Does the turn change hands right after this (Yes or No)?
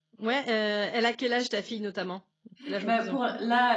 Yes